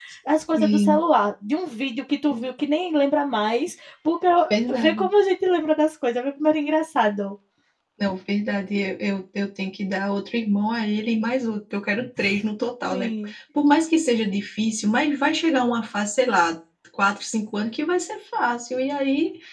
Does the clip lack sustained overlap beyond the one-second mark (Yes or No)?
Yes